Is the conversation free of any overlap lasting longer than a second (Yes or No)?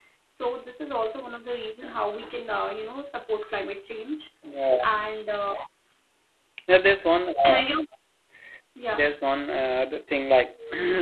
Yes